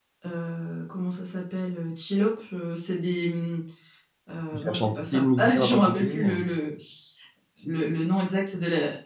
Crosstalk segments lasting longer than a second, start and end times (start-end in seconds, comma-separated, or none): 4.5-6.4